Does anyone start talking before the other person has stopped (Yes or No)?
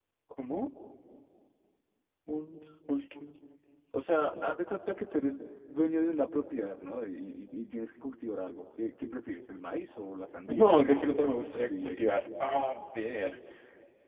Yes